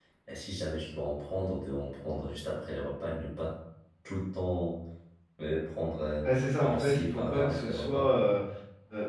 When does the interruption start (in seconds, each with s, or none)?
6.6 s